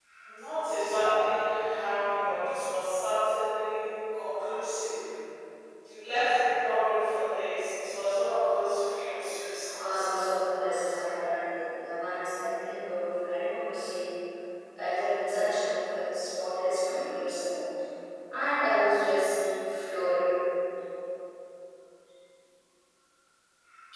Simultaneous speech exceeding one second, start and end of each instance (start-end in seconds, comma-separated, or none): 9.8-11.0